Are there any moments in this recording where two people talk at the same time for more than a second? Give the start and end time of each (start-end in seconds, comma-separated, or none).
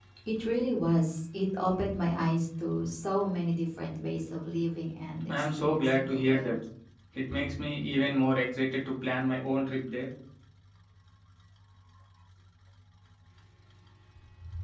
5.3-6.5